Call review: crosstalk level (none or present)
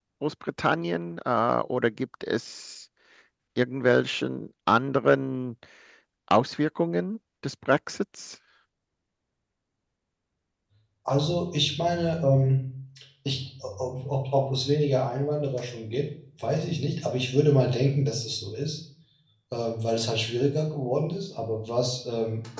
none